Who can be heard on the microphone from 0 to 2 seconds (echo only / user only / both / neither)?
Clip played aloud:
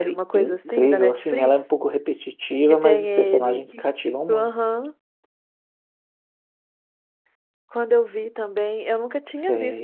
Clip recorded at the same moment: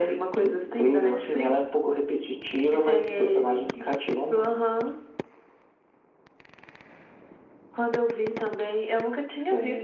echo only